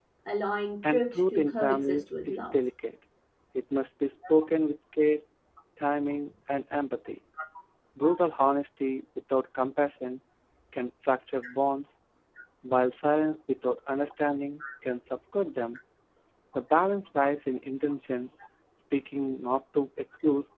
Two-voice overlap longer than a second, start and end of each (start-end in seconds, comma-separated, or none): 0.9-2.6